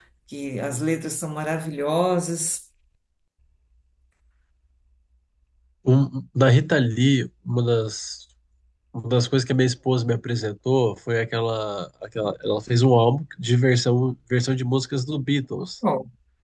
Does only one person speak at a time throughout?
Yes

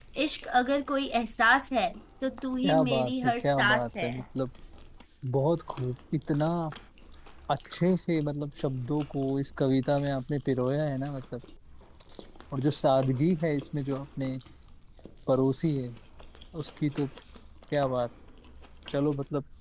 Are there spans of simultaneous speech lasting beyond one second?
Yes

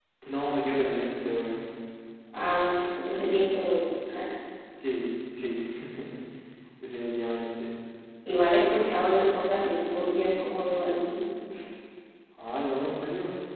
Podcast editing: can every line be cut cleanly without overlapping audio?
Yes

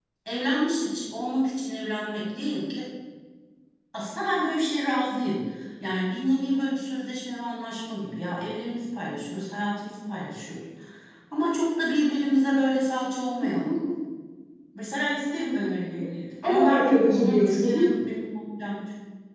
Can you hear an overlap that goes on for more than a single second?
Yes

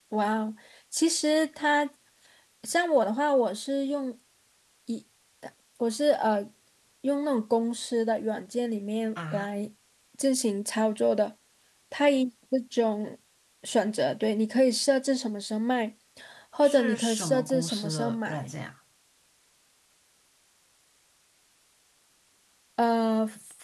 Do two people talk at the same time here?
Yes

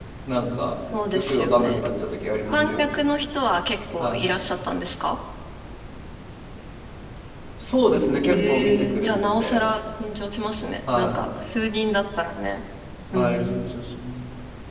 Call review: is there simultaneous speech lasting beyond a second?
Yes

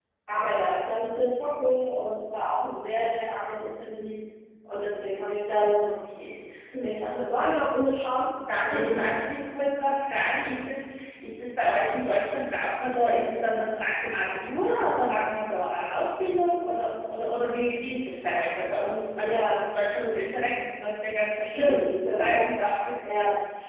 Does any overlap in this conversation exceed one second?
No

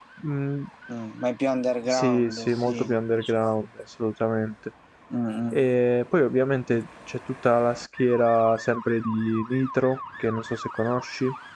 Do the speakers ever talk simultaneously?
Yes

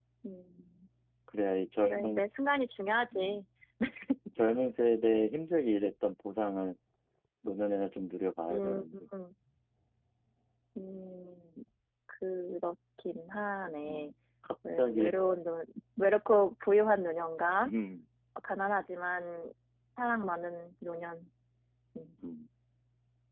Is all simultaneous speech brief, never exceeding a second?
Yes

